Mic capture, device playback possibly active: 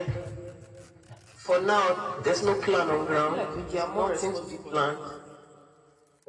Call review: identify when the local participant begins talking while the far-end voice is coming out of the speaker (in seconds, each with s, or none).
2.8 s